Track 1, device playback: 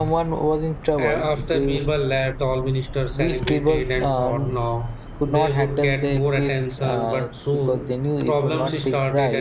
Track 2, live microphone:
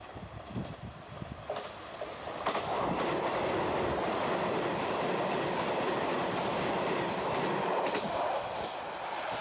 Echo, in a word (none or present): none